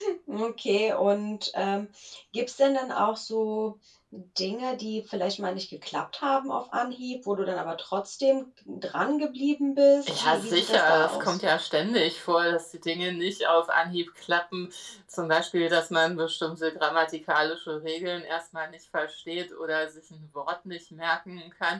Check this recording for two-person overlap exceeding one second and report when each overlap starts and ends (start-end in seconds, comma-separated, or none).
10.1-11.4